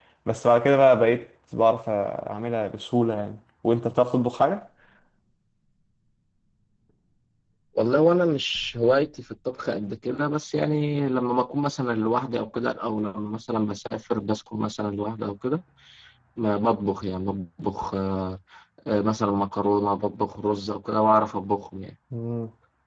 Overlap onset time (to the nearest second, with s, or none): none